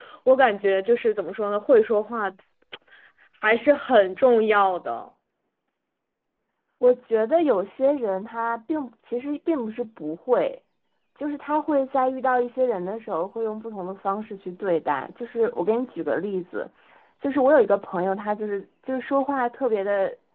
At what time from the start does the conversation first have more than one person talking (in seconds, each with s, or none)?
none